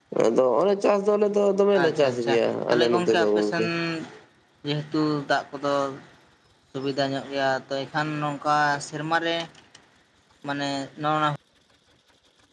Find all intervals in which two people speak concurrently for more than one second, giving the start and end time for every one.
1.8-3.6

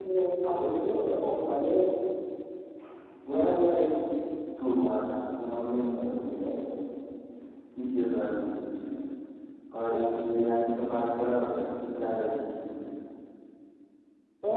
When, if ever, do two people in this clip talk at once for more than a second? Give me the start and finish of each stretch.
none

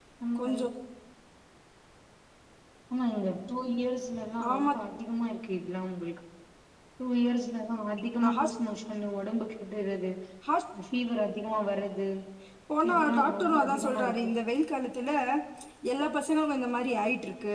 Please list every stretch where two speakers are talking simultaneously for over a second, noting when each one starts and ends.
12.8-14.3

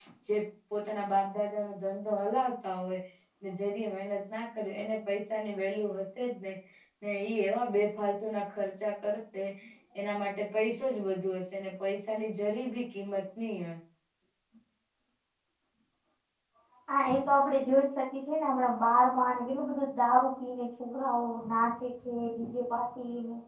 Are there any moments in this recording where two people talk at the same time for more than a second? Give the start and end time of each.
none

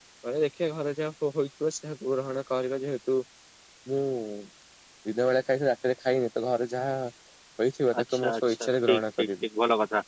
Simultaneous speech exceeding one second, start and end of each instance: 8.0-9.3

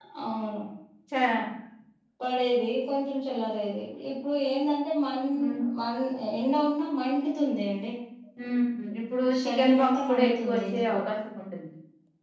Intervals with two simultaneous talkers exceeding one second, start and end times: 9.4-10.9

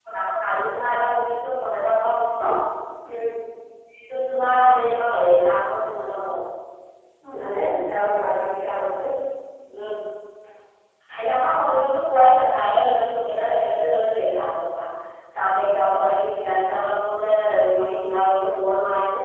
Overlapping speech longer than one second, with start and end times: none

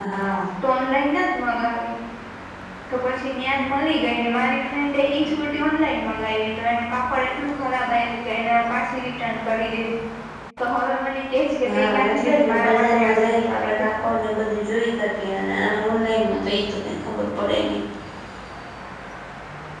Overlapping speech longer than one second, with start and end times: 11.7-13.9

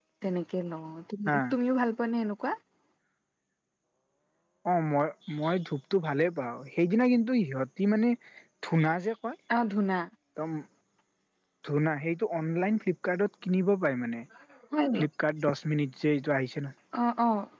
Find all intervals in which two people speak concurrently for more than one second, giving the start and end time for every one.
none

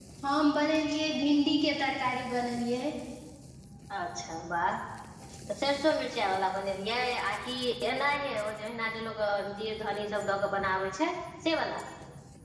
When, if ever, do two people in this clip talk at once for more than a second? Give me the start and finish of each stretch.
none

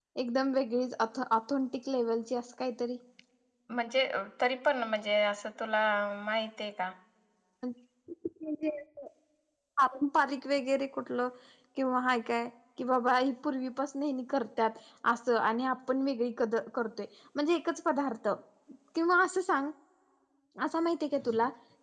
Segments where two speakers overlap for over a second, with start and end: none

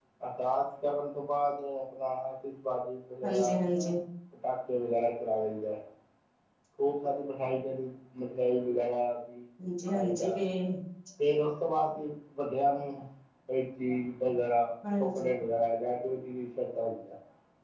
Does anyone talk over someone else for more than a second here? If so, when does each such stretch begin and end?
none

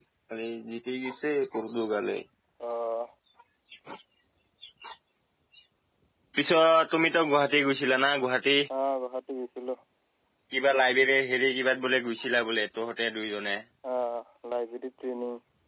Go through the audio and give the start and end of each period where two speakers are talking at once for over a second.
none

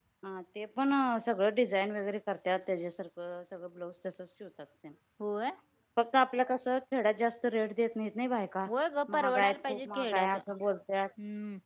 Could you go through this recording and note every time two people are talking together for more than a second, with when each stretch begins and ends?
9.1-10.4

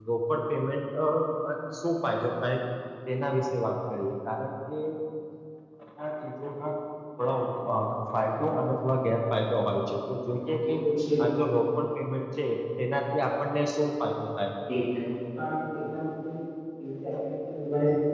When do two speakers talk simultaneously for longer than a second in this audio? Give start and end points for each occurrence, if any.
none

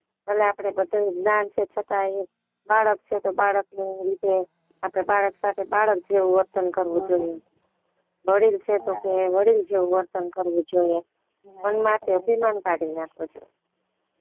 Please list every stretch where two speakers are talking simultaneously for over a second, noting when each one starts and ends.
11.6-13.0

